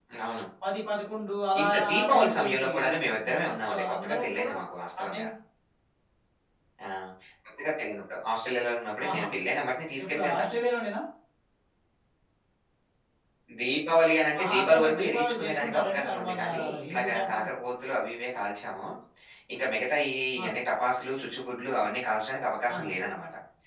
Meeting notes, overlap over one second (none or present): present